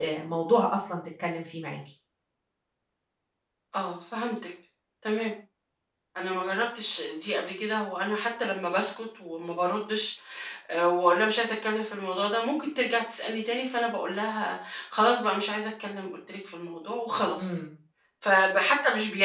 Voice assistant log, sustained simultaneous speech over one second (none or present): none